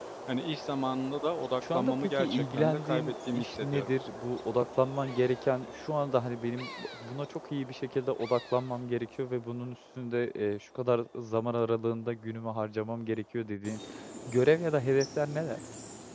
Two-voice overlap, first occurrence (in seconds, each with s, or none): 1.6 s